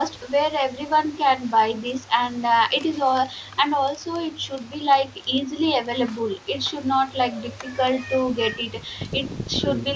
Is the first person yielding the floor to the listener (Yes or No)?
No